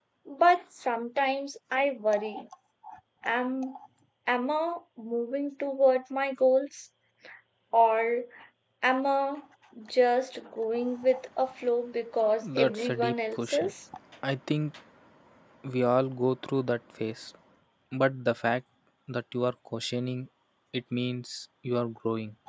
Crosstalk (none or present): present